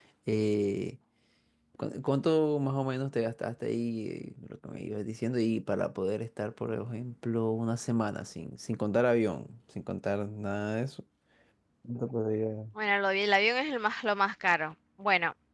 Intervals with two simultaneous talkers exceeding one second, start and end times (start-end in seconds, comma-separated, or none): none